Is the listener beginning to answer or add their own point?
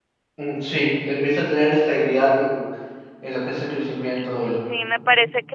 Yes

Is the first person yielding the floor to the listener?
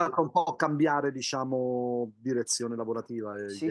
Yes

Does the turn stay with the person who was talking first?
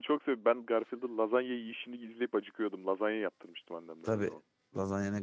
No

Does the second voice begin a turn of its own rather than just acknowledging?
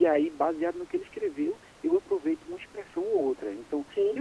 No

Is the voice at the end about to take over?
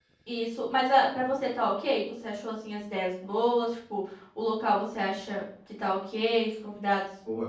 Yes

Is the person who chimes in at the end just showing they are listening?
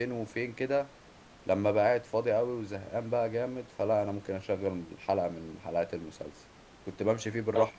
Yes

